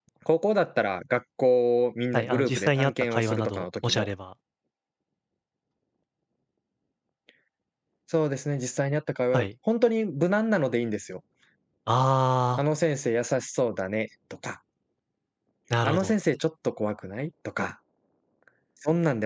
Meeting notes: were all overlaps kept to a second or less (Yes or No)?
No